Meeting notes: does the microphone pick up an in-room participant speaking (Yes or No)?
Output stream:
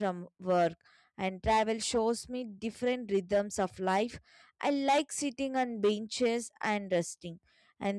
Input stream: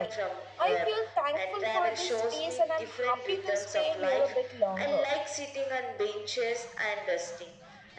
Yes